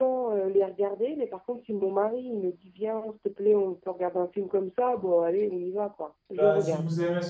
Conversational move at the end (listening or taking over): taking over